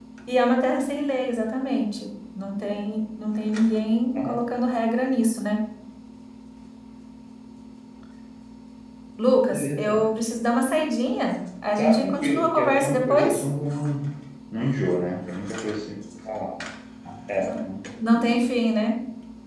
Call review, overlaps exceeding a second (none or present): present